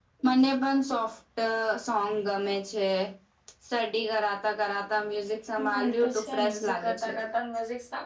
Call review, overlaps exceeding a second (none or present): present